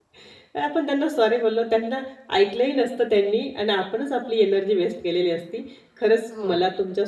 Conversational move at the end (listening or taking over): listening